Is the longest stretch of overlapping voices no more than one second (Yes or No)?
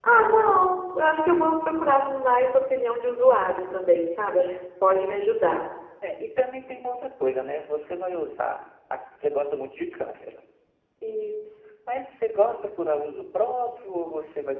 Yes